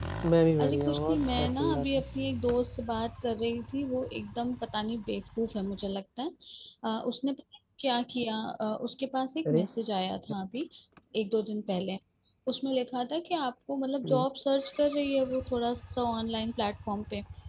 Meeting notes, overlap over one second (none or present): present